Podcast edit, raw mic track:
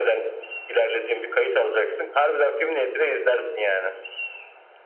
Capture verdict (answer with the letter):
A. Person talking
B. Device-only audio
B